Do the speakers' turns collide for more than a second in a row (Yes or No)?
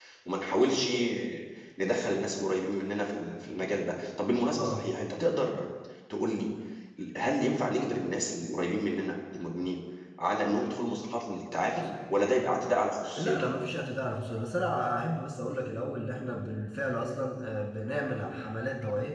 No